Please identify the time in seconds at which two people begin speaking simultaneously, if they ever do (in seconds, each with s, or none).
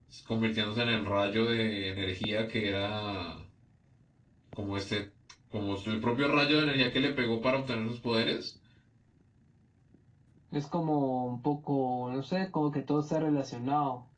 none